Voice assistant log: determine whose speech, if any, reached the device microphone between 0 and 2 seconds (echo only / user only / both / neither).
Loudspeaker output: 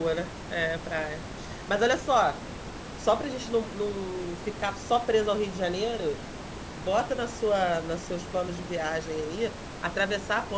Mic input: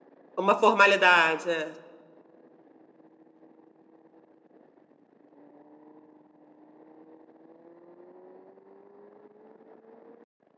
user only